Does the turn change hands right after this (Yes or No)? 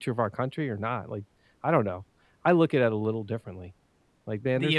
No